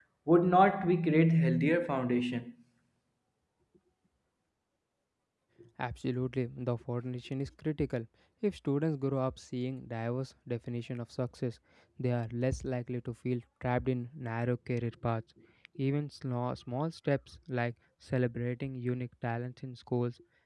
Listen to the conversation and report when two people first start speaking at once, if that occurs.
none

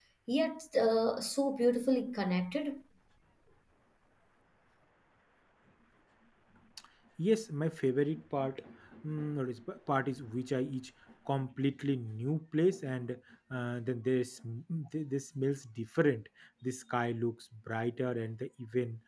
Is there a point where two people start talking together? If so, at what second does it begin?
none

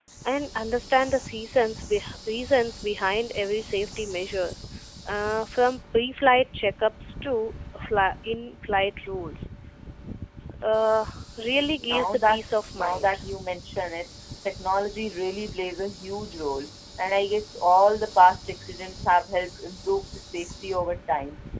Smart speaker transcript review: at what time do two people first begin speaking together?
11.8 s

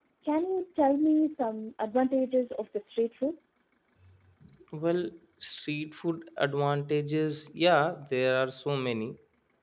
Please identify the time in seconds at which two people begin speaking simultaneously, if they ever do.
none

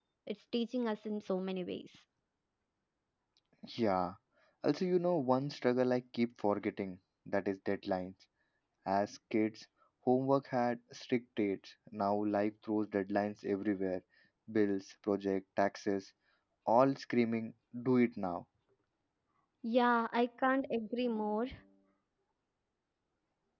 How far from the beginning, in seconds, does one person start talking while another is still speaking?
none

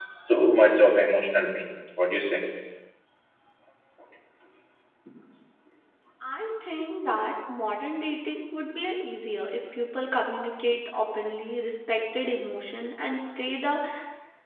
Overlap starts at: none

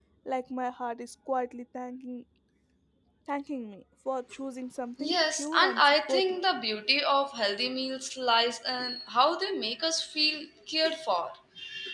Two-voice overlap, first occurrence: 5.0 s

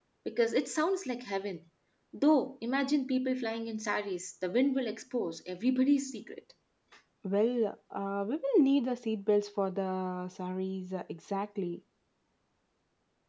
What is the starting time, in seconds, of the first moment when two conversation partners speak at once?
none

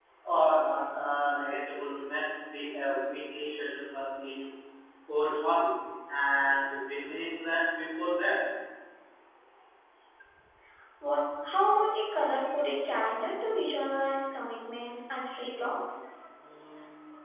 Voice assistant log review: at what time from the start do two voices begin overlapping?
none

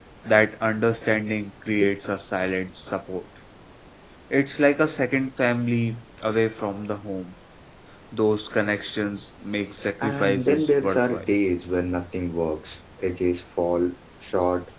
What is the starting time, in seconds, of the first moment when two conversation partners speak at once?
10.0 s

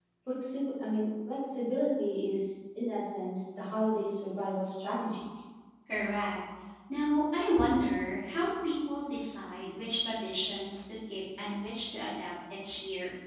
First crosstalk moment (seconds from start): none

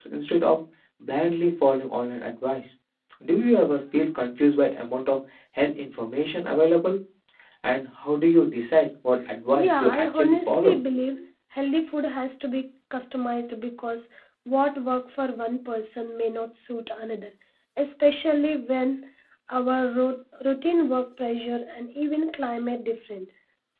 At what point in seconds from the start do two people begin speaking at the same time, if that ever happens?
9.5 s

